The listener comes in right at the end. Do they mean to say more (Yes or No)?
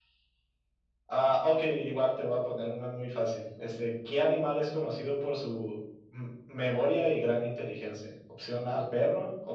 No